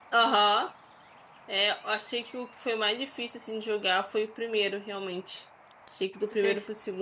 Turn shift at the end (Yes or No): No